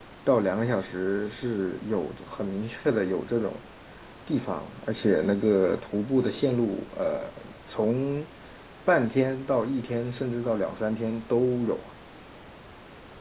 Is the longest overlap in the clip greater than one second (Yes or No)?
No